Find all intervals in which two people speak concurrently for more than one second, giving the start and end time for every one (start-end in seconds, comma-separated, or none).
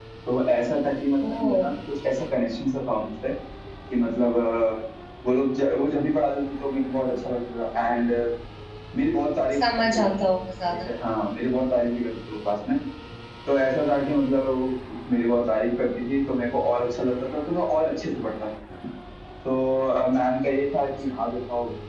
none